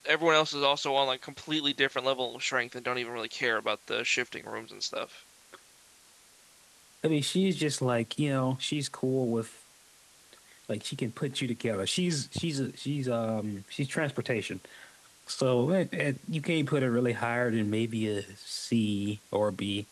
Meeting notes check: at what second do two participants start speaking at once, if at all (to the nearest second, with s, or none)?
none